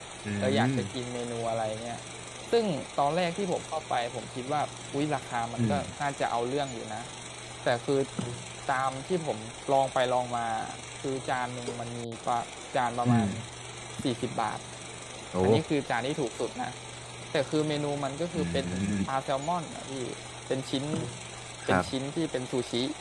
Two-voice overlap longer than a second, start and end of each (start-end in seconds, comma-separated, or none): none